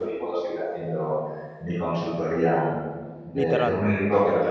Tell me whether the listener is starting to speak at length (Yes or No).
No